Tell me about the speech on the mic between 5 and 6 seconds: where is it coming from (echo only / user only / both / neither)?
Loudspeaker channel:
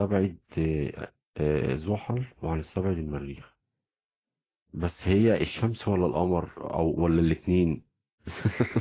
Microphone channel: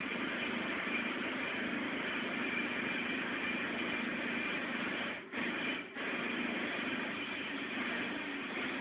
neither